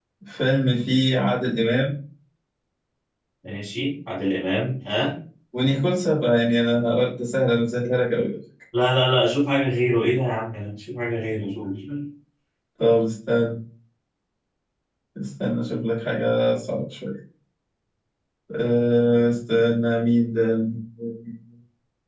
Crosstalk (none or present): none